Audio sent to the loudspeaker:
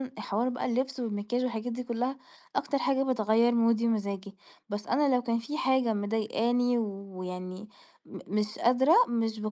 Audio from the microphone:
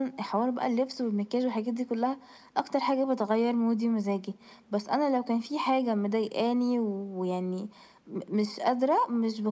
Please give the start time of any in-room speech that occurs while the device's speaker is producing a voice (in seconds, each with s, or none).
none